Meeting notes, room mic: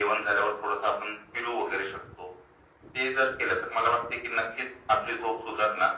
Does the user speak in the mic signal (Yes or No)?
No